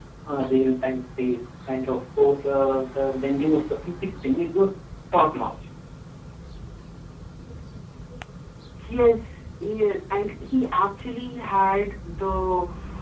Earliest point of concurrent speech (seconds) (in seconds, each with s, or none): none